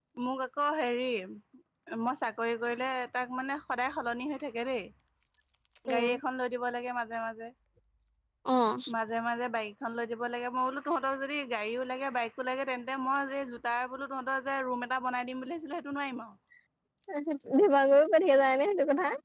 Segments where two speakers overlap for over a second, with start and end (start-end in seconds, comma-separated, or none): none